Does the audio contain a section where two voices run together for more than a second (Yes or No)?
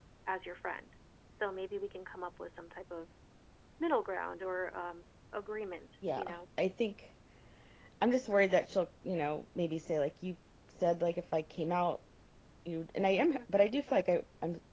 No